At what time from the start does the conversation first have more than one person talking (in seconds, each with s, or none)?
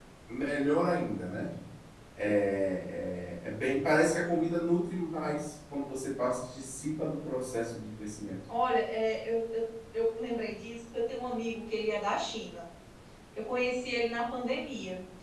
none